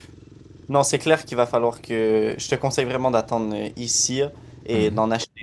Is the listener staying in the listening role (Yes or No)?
Yes